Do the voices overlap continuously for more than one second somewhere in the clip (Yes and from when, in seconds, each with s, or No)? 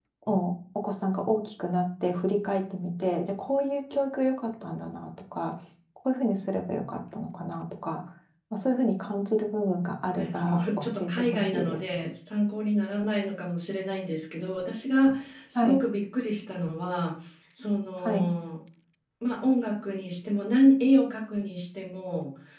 Yes, from 10.2 s